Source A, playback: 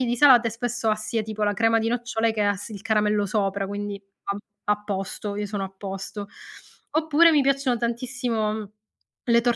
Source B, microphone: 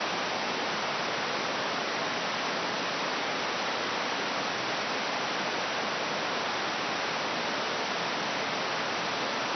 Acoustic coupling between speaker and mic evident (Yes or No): No